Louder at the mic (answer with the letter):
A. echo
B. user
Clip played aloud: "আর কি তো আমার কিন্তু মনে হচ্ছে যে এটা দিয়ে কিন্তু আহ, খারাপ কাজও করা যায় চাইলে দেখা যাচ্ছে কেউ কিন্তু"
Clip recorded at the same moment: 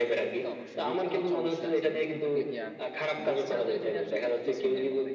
A